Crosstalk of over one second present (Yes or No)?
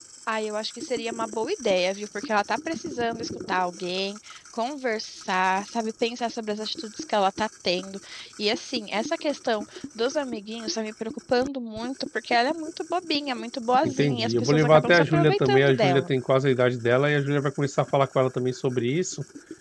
Yes